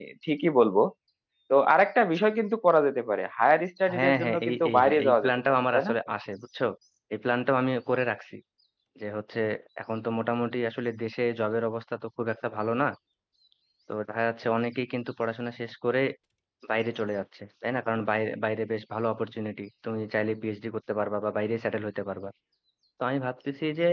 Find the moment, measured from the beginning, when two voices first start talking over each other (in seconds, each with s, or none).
3.9 s